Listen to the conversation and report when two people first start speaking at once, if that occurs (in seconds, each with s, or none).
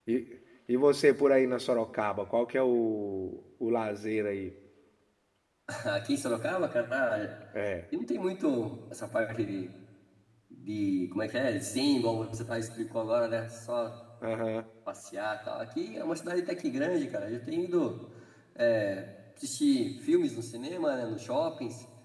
none